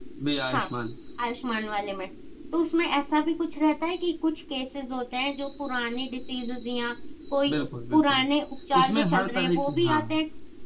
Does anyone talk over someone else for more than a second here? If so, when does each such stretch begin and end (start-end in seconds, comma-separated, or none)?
8.8-10.0